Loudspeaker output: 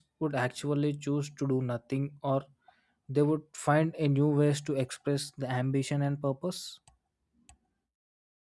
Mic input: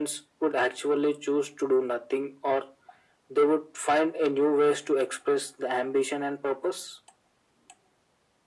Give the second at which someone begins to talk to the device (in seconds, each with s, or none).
none